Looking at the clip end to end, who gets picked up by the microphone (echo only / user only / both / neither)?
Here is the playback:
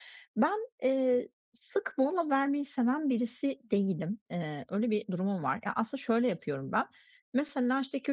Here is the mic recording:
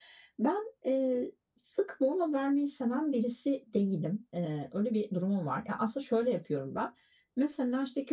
echo only